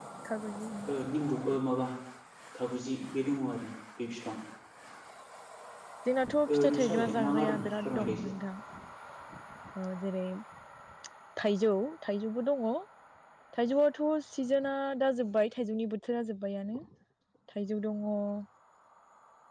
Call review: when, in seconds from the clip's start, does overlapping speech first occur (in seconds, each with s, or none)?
6.5 s